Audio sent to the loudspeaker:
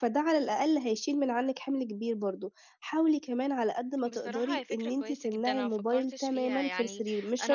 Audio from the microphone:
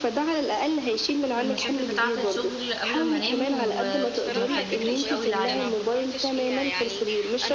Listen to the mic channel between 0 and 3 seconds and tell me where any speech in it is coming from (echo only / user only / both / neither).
both